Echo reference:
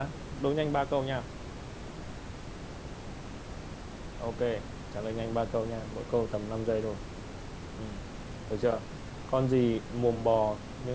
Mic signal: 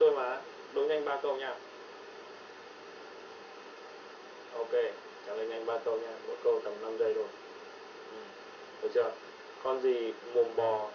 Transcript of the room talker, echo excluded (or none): none